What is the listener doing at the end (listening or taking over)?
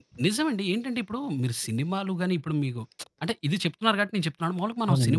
listening